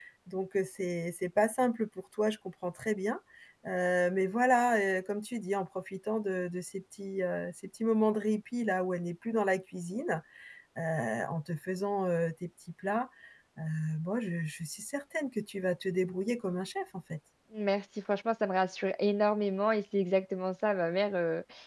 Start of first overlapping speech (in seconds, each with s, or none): none